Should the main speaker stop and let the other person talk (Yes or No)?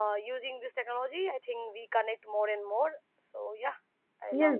Yes